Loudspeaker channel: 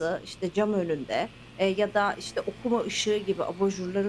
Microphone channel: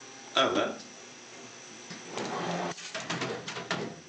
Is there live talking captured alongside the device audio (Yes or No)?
Yes